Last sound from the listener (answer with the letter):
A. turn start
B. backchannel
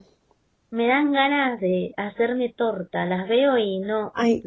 A